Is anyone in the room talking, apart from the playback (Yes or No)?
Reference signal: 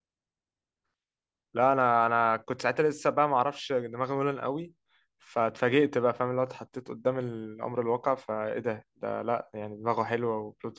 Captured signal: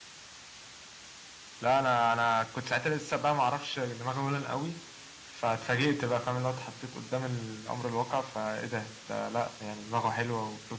No